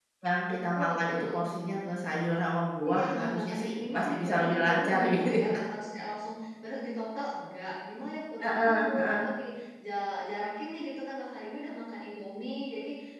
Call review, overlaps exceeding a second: present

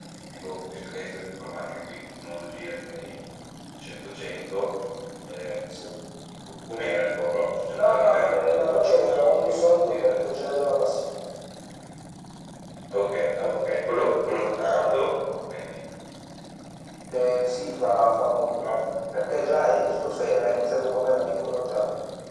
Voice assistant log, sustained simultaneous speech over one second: present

